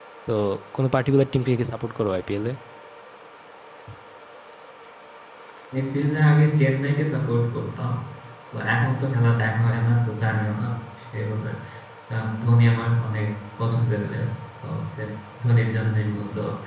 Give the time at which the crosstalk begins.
none

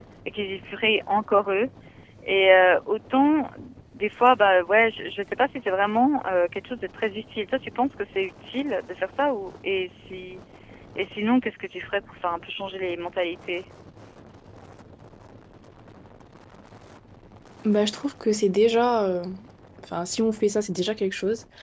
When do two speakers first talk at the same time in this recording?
none

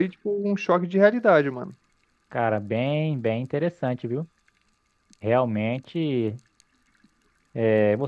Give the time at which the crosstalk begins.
none

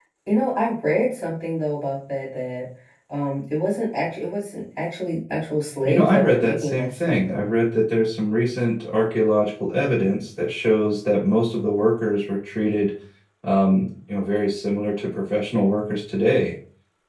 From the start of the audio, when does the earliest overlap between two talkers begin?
5.8 s

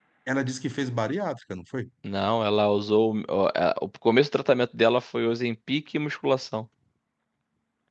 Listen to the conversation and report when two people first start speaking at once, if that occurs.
none

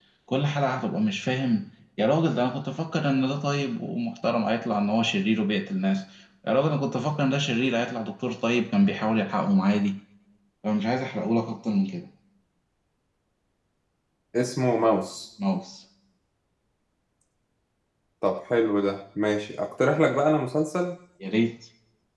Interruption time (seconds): none

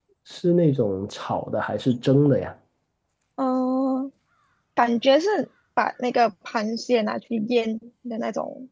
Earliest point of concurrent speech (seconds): none

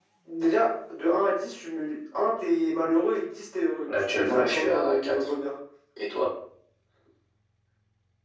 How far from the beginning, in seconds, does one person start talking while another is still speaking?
3.9 s

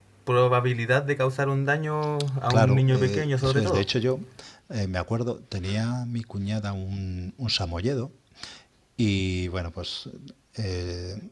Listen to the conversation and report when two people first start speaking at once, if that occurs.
2.5 s

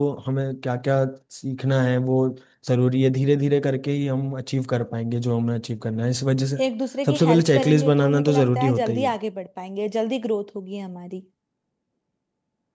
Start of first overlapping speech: 7.0 s

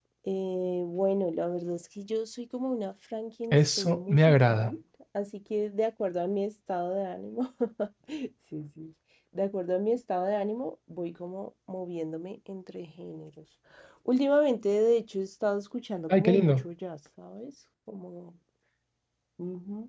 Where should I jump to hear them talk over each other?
3.5 s

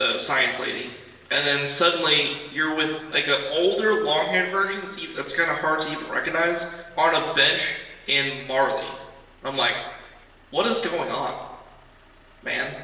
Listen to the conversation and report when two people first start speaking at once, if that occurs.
none

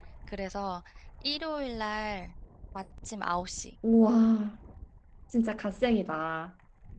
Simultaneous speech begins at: none

